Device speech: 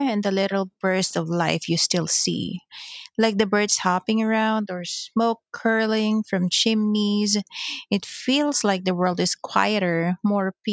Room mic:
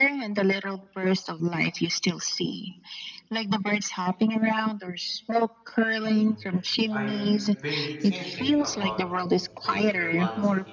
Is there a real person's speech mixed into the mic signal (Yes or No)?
Yes